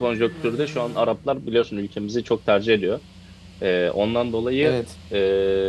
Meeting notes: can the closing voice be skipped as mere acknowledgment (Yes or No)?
Yes